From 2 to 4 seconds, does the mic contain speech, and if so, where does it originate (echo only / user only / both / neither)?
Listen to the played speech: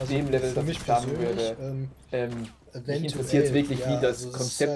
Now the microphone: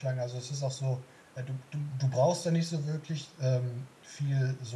user only